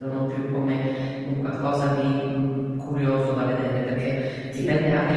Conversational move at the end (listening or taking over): listening